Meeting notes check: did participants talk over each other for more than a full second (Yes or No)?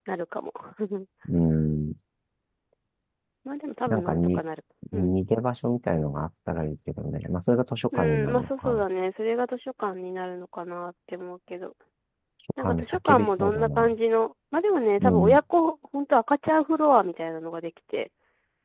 Yes